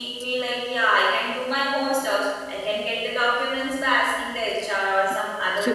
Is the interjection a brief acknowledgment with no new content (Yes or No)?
No